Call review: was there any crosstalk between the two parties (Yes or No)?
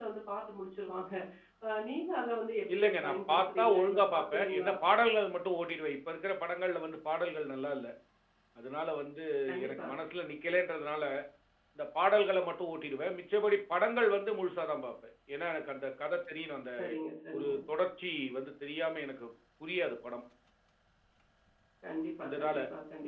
Yes